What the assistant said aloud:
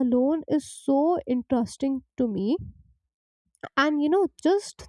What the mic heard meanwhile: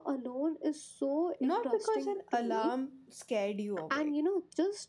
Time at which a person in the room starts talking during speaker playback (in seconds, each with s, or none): 1.4 s